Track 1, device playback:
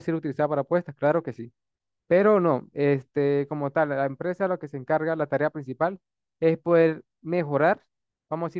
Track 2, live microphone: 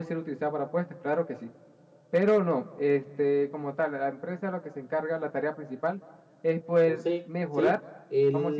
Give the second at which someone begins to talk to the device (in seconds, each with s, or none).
6.8 s